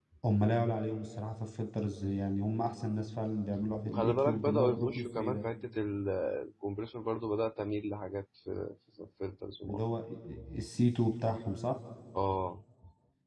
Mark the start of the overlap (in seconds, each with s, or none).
3.8 s